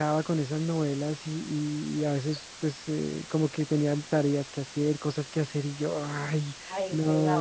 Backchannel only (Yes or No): Yes